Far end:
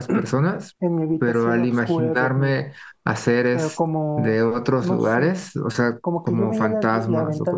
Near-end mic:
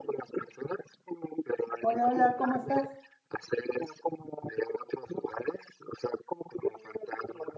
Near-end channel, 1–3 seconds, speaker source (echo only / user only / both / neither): both